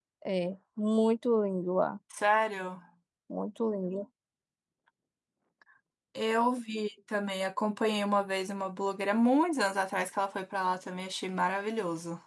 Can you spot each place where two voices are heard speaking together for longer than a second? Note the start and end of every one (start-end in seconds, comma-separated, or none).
none